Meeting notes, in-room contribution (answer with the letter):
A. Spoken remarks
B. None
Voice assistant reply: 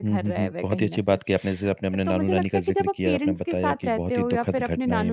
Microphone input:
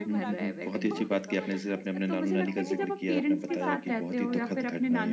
A